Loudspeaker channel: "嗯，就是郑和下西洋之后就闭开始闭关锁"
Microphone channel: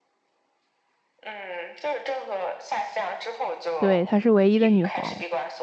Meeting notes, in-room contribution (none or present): present